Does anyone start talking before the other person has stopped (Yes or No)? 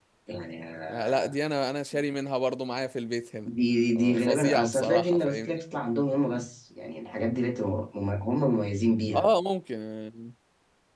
Yes